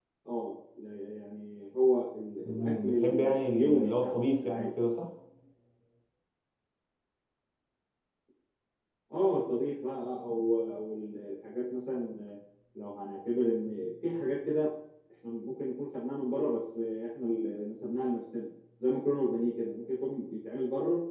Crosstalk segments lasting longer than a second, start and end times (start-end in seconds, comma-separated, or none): 2.5-4.7